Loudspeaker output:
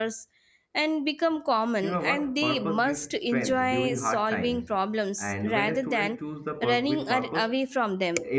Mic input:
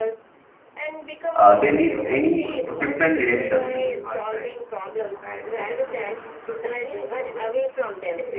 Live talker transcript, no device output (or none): uh, they need any different directions.